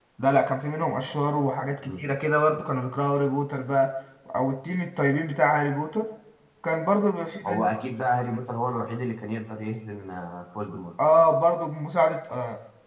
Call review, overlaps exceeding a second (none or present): none